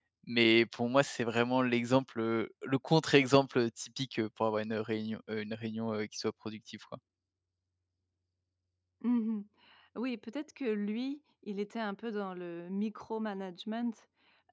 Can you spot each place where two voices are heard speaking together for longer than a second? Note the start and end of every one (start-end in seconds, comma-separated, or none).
none